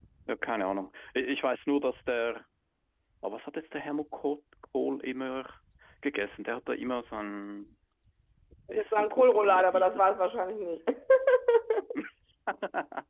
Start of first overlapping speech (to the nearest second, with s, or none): 9 s